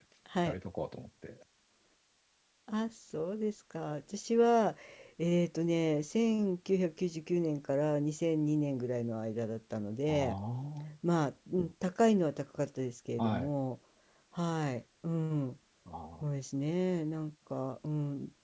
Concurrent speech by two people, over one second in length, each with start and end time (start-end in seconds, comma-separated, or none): none